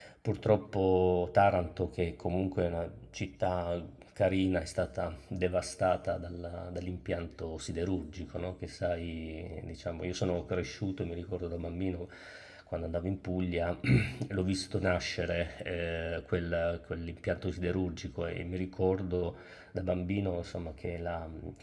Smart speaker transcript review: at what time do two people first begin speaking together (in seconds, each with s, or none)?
none